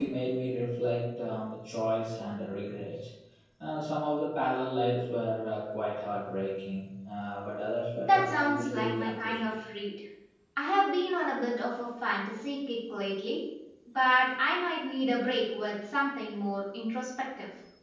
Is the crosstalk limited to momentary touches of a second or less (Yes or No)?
No